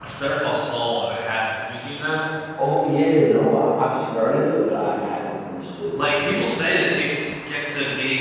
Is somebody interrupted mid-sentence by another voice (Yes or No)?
No